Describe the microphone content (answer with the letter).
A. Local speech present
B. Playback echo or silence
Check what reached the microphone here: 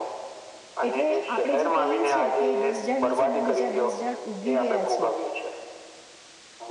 A